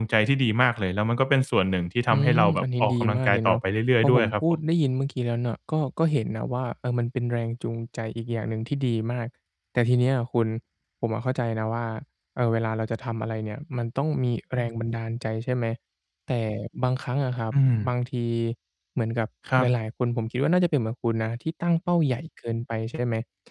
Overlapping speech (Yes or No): Yes